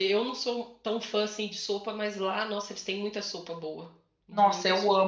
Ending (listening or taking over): taking over